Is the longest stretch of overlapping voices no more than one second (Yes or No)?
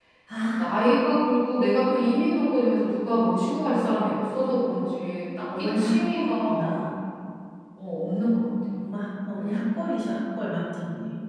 No